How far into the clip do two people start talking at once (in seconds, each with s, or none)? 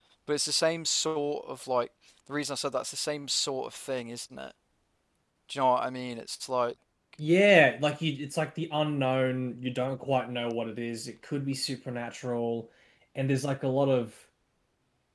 none